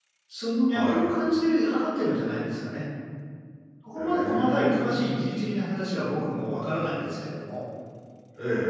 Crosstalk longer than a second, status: present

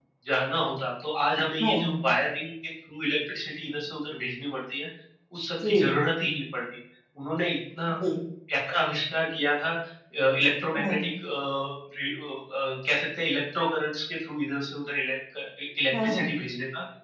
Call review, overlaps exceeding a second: none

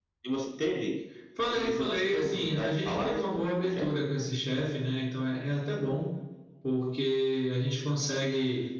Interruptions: present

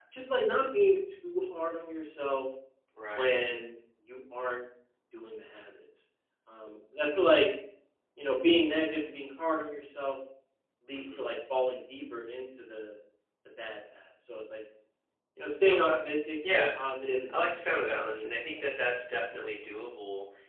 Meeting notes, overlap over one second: present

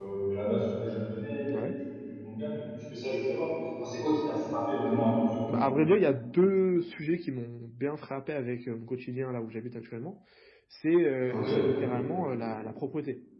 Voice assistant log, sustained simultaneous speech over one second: none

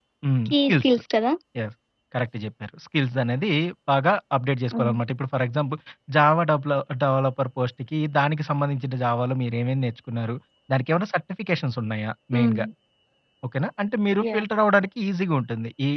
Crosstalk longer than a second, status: none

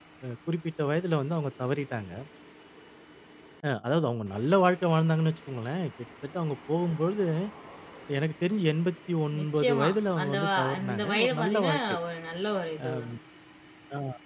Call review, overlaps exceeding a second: present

